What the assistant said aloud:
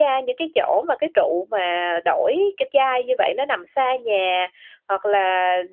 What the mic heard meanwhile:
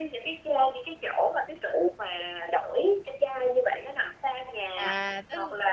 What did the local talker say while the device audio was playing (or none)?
À! Tức